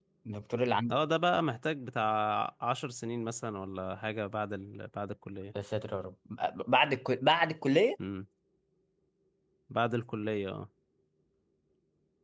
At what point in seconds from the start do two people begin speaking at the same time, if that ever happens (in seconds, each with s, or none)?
none